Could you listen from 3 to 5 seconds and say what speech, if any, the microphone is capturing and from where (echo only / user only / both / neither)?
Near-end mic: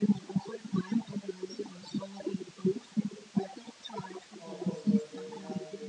both